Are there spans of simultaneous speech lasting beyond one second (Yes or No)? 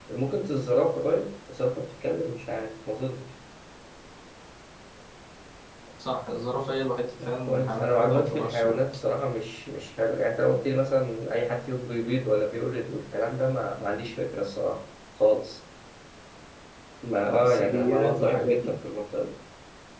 Yes